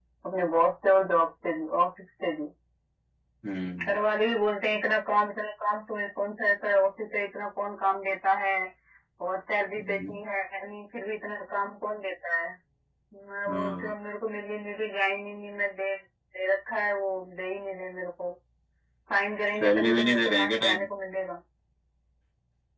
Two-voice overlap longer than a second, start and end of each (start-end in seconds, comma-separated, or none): 19.6-20.8